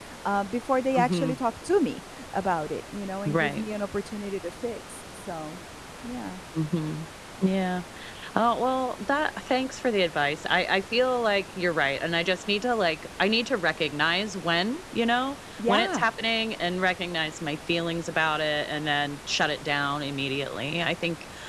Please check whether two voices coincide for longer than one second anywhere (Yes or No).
No